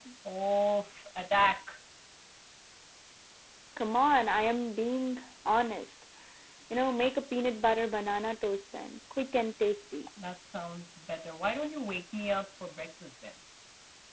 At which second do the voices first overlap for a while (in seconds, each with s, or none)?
none